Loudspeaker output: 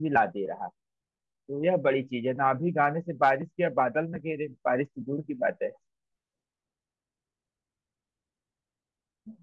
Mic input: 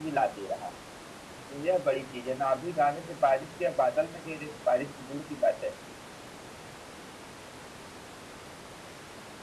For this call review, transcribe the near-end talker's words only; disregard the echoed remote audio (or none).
none